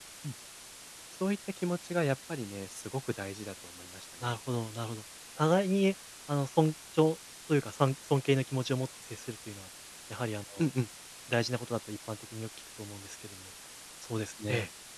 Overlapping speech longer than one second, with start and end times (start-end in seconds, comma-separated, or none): none